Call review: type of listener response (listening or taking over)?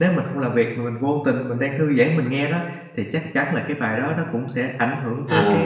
taking over